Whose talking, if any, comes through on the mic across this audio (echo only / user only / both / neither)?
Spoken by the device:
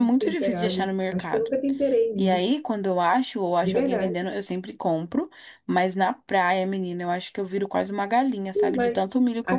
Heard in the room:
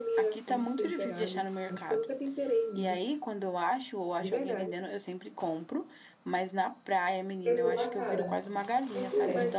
both